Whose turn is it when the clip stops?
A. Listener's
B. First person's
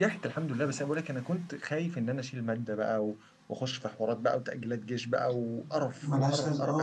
A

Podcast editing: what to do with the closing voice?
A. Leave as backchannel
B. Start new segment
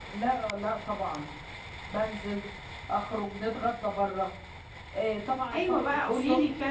B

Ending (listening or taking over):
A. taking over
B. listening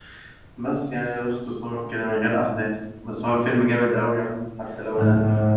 A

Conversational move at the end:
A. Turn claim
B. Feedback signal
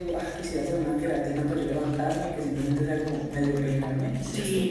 A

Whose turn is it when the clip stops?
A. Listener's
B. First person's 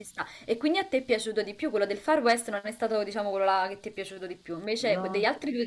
B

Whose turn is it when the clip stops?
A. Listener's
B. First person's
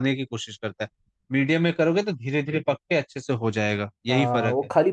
A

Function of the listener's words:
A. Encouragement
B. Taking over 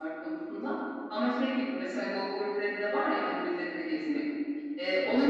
A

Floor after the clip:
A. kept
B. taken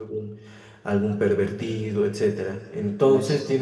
A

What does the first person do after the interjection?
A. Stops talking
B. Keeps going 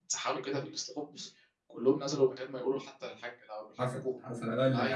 A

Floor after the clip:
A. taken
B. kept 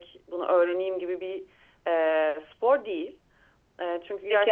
A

